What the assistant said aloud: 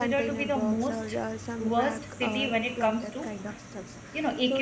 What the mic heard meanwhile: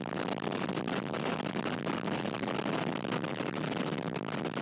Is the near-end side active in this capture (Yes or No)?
No